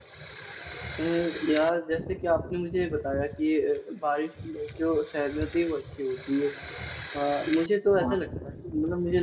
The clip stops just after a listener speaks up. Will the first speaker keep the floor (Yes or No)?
Yes